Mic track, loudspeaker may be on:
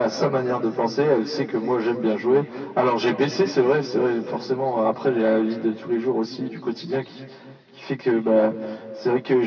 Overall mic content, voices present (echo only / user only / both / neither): echo only